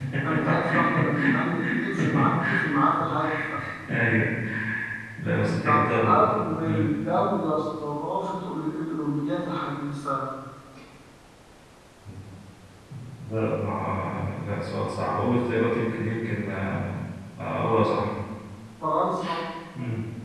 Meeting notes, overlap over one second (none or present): present